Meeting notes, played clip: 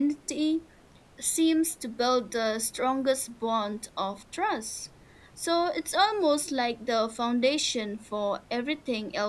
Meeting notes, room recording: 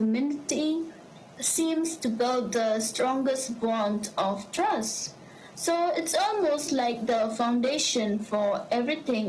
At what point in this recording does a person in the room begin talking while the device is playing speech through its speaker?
none

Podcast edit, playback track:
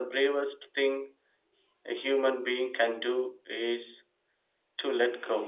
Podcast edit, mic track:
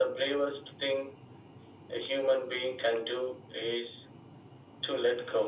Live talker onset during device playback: none

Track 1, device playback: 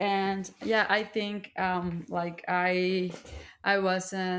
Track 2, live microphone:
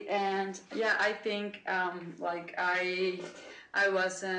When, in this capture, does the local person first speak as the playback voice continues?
none

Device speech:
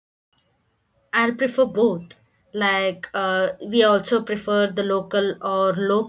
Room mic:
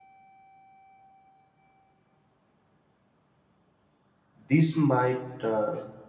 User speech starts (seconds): 4 s

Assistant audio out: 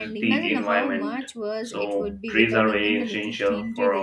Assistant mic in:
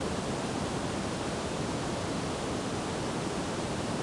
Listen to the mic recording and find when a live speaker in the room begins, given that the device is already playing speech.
none

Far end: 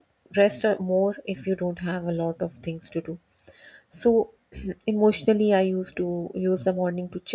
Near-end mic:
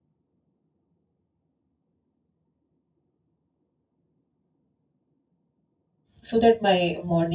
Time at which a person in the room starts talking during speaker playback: 6 s

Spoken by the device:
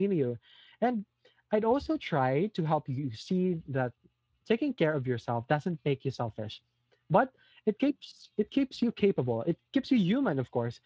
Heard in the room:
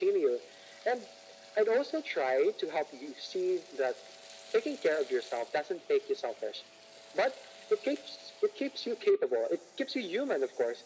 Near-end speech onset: none

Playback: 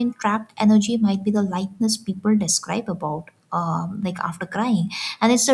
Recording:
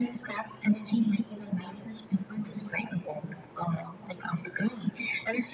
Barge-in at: none

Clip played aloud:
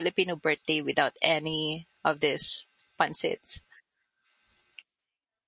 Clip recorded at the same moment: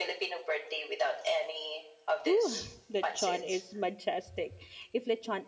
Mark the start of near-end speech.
2 s

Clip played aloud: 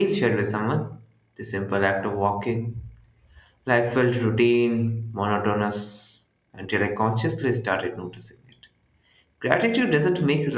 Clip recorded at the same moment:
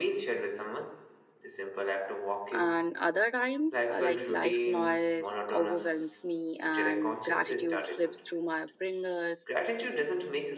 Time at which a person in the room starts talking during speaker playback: 3 s

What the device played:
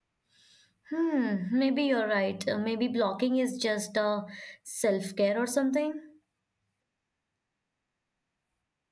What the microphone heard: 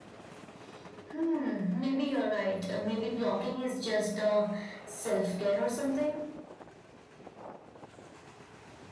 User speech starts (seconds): none

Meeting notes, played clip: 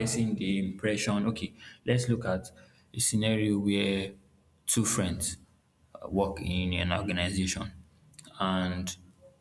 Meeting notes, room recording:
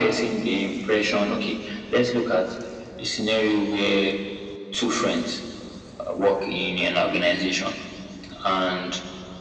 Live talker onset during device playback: none

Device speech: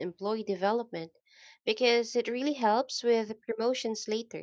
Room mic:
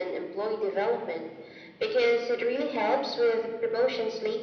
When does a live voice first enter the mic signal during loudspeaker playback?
none

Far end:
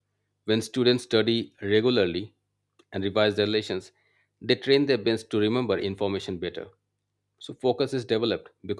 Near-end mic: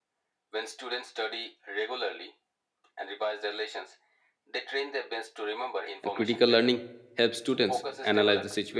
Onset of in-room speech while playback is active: 6 s

